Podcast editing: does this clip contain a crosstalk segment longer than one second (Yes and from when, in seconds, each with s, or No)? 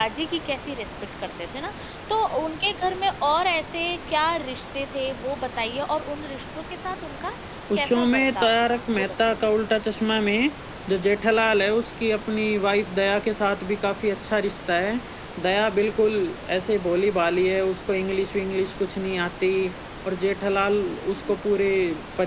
Yes, from 7.8 s